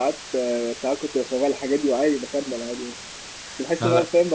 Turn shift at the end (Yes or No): No